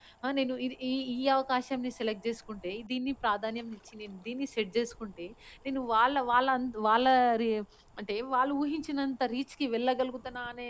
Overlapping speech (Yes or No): No